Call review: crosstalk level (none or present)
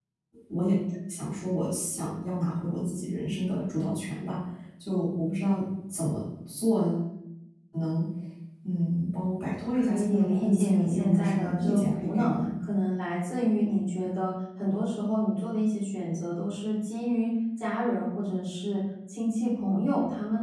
present